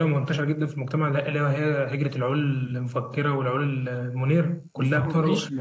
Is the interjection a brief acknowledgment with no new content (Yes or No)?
No